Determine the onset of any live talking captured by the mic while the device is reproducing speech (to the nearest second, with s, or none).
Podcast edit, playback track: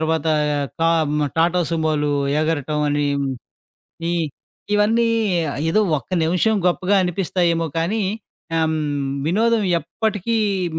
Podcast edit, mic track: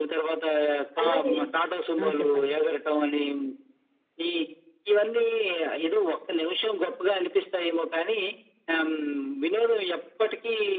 1 s